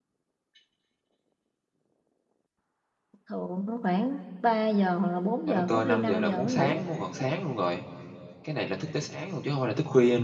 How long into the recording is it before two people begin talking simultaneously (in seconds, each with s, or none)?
5.5 s